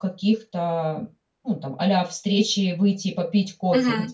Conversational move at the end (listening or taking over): taking over